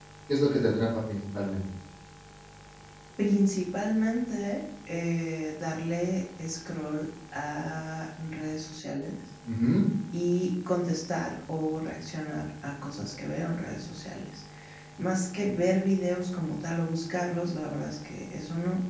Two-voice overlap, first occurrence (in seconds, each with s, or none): none